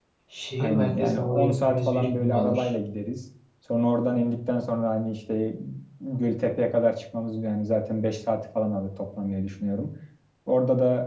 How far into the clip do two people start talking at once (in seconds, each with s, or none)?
0.6 s